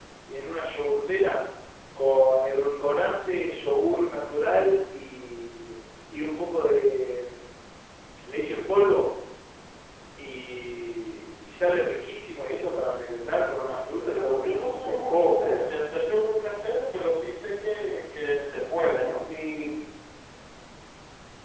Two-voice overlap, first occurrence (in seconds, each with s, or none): 13.9 s